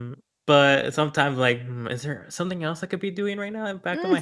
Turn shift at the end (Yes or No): Yes